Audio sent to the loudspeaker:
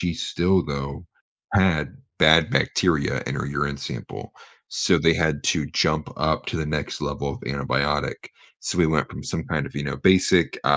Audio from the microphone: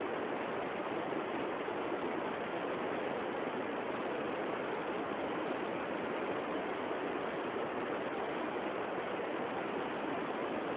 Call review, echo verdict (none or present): none